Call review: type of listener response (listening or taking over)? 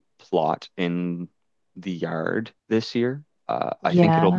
listening